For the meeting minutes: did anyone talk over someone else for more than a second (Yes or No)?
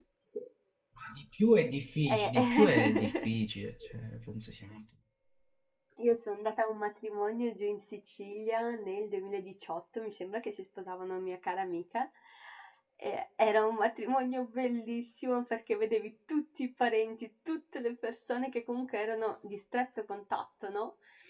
Yes